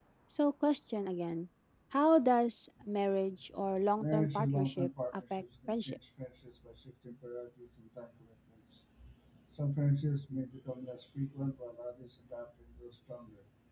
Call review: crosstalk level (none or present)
present